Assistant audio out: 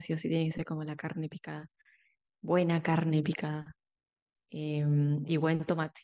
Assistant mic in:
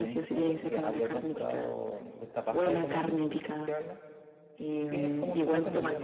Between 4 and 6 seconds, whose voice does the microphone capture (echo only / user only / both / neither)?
both